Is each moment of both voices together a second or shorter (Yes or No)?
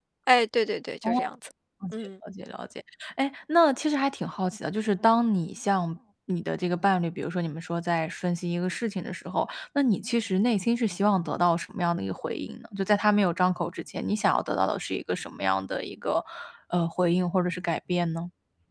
Yes